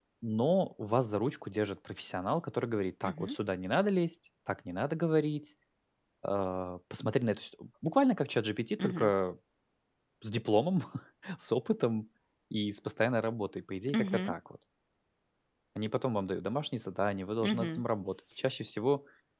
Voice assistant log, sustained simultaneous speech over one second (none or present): none